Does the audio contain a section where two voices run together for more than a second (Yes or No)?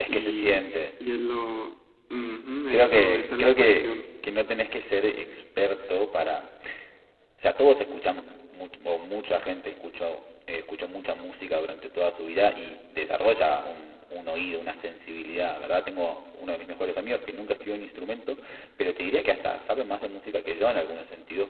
Yes